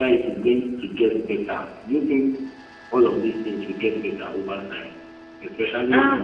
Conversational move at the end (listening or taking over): taking over